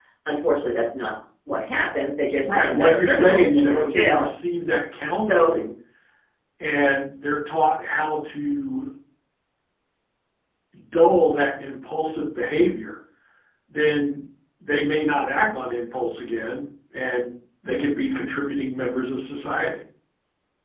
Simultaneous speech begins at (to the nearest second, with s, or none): 2 s